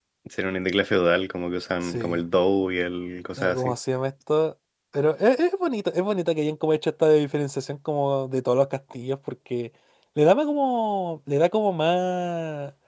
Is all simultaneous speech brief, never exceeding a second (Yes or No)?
Yes